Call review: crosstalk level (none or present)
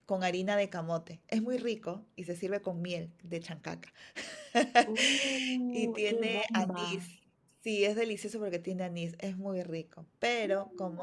present